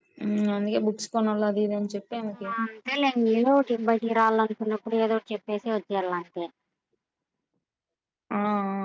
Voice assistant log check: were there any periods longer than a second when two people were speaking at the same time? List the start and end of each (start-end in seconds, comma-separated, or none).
none